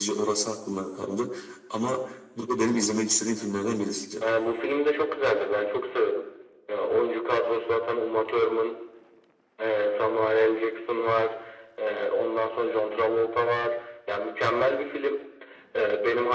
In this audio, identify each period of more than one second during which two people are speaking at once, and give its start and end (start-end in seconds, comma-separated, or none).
none